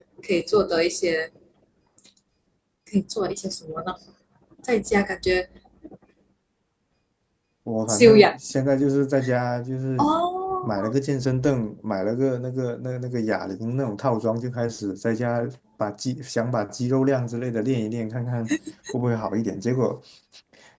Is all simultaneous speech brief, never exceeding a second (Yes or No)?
Yes